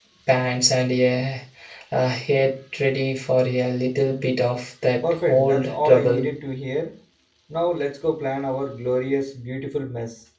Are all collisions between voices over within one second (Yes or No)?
No